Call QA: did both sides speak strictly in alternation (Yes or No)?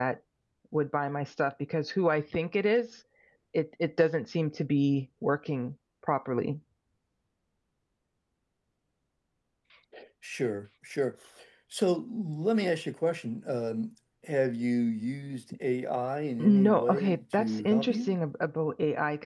No